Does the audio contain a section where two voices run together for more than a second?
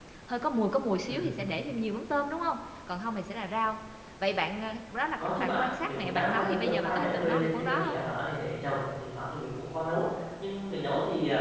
Yes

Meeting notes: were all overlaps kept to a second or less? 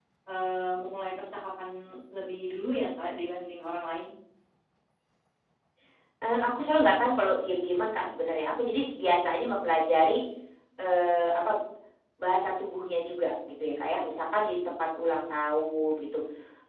Yes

